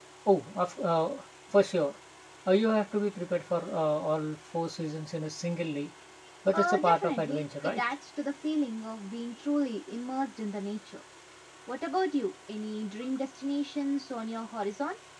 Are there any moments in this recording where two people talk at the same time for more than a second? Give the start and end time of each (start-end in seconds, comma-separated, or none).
6.5-7.8